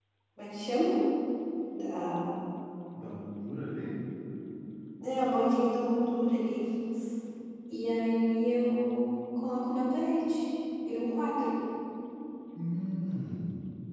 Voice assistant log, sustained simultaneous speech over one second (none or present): none